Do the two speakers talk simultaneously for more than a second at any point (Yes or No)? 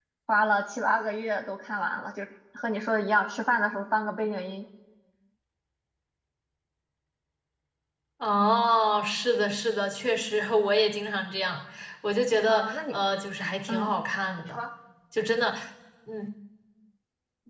No